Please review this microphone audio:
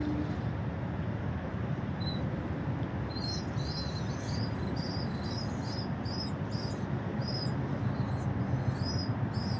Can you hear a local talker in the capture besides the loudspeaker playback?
No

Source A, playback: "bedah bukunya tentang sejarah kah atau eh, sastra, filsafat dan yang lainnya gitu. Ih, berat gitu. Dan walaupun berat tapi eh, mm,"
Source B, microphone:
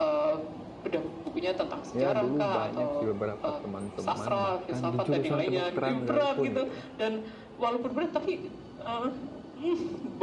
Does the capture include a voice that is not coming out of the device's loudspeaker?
Yes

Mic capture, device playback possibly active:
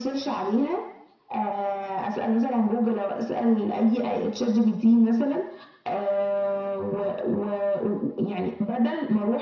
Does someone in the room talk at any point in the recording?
No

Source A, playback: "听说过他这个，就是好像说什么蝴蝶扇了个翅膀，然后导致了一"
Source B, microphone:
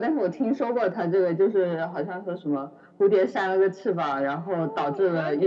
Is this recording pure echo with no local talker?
No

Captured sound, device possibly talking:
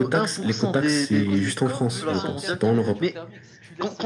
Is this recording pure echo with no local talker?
No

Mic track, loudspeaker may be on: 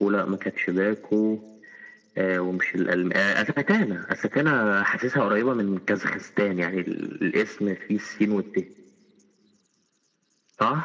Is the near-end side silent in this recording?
Yes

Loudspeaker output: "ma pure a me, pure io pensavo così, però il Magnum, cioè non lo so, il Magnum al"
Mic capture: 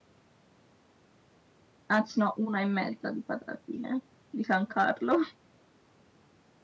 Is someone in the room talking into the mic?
Yes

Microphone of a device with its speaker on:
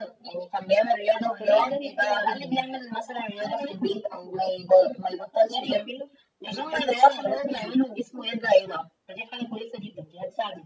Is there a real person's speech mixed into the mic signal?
Yes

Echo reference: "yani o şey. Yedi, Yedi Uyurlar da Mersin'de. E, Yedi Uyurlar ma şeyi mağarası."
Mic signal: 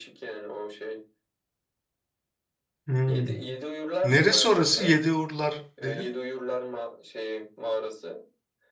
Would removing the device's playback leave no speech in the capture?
No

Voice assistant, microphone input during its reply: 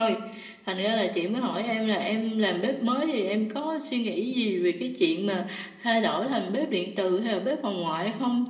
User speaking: No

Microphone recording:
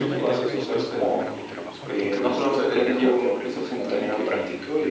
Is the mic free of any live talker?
No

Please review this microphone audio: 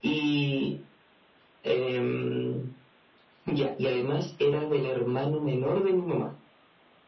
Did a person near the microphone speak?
No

